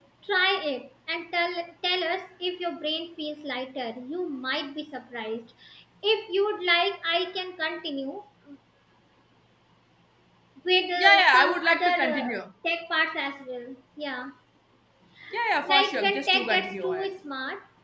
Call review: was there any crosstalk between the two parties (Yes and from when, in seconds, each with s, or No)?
Yes, from 11.0 s